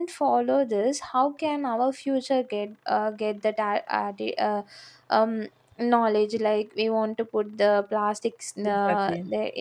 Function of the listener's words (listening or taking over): listening